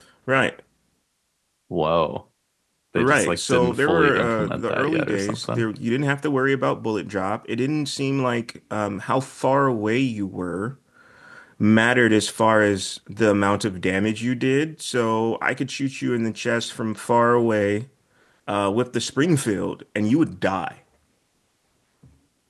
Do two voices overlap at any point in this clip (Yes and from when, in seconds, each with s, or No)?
Yes, from 3.0 s